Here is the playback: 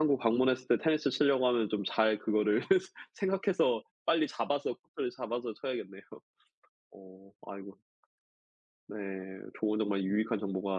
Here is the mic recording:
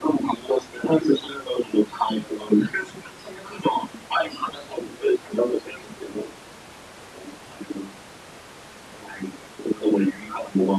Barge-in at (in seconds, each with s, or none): none